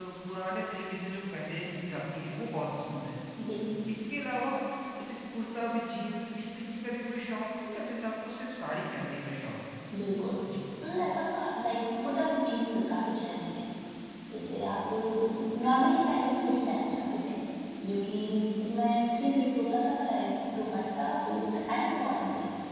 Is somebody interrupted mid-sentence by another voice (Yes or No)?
No